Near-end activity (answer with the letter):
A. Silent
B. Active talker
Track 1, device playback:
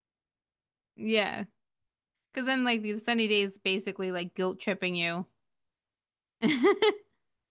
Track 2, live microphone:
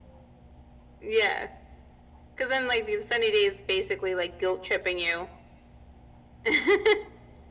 A